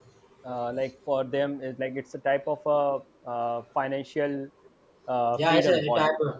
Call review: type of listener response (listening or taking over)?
taking over